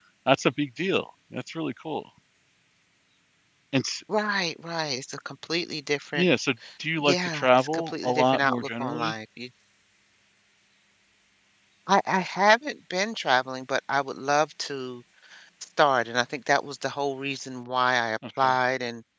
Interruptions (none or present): present